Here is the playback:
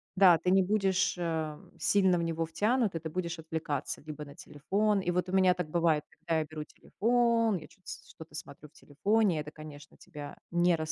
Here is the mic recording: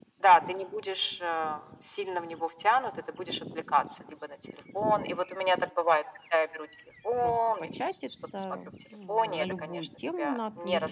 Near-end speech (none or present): present